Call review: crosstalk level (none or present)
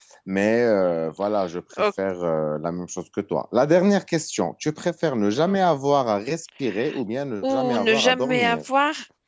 present